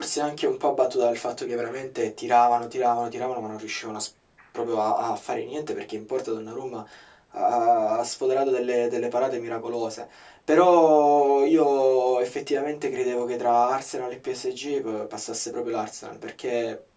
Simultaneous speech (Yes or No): No